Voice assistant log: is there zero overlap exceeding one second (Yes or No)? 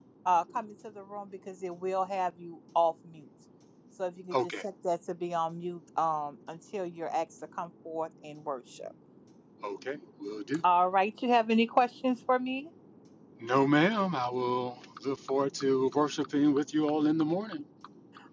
Yes